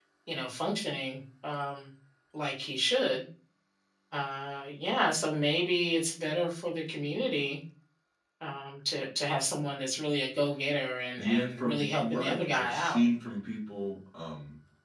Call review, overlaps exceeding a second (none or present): present